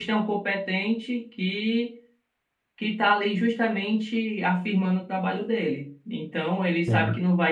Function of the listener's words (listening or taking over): listening